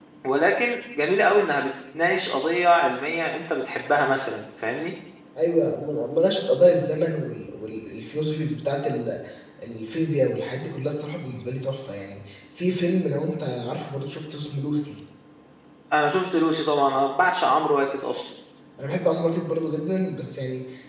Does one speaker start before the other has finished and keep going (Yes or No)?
No